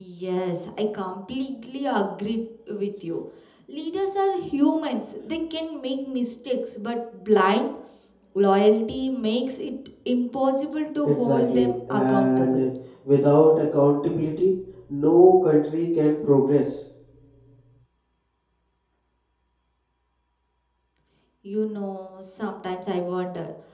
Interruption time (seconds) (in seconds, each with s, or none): 11.0 s